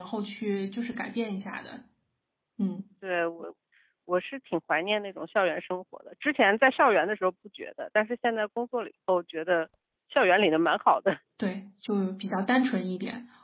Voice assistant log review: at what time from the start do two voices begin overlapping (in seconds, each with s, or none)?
none